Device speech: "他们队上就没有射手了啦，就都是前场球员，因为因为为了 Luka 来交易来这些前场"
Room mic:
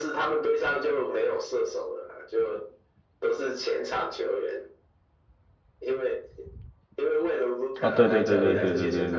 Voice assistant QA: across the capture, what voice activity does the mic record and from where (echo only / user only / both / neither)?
both